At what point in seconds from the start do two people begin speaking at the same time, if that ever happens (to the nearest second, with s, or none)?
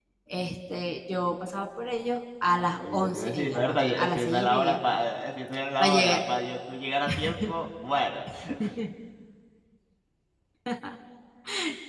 3 s